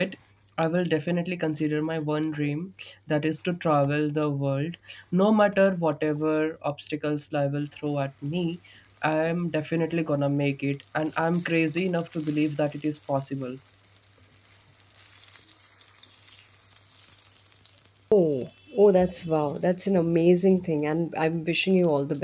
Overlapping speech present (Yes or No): No